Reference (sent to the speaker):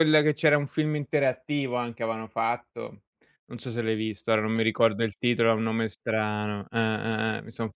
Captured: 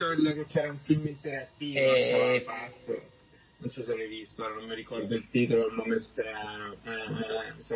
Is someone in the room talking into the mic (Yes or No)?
Yes